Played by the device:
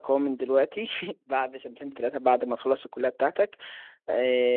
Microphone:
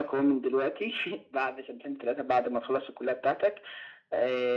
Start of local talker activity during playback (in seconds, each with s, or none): none